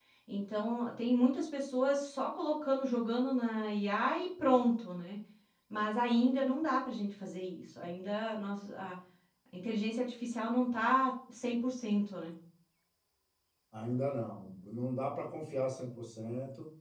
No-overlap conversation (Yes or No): Yes